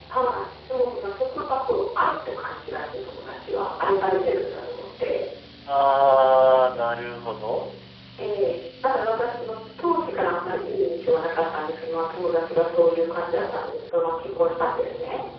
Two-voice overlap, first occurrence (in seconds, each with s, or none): none